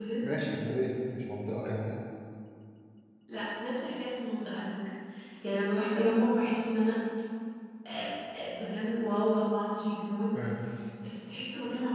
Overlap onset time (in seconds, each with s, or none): none